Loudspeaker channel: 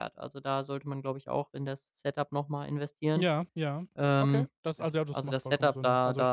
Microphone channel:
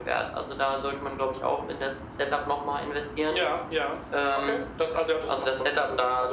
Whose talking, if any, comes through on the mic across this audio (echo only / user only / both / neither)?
echo only